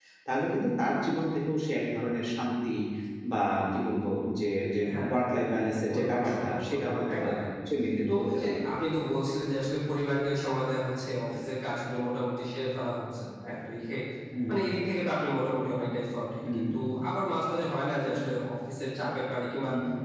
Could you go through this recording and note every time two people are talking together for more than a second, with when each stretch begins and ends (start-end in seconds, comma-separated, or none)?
5.9-7.3